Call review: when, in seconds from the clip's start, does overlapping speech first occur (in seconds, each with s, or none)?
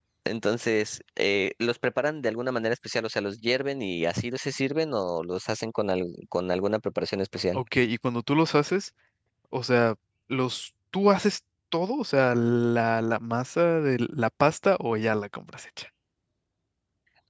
none